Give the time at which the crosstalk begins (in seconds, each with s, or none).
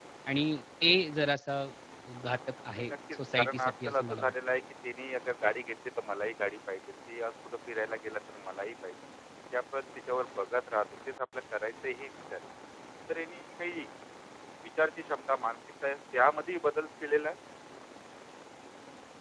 2.7 s